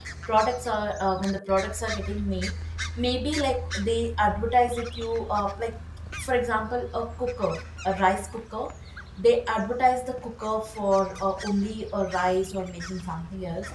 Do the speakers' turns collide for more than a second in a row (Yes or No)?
No